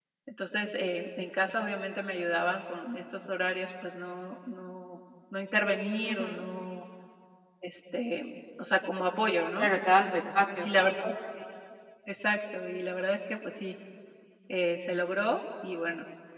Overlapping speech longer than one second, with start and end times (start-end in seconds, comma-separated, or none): none